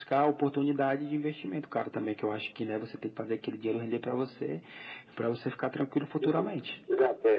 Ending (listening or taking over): taking over